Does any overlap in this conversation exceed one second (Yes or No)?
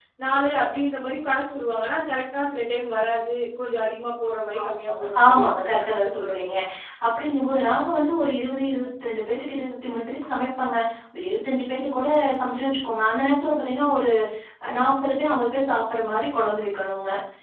Yes